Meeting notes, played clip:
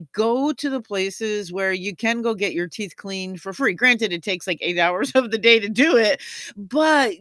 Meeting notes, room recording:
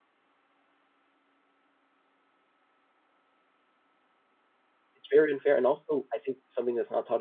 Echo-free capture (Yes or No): Yes